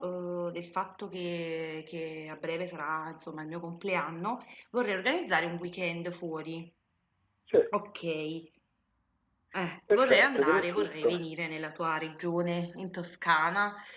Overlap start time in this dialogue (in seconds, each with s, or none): 9.9 s